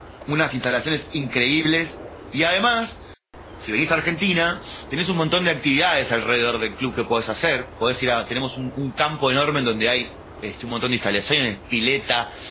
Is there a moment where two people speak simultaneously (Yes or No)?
No